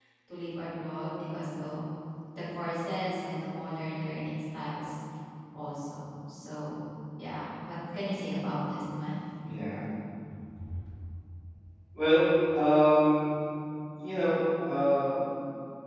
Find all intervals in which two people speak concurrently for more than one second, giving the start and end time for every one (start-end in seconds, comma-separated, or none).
none